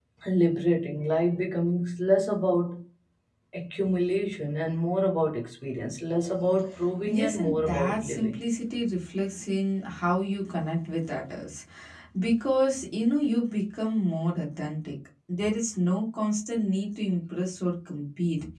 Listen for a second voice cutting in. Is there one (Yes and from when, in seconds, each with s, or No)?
Yes, from 7.0 s